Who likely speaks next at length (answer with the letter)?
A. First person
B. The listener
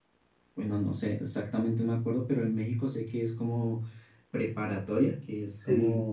A